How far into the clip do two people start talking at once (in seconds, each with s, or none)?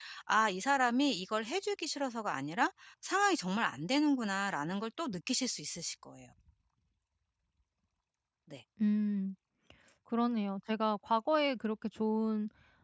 none